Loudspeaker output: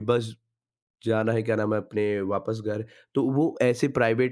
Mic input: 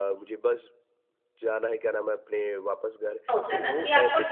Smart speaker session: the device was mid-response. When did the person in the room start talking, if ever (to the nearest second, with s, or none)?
3 s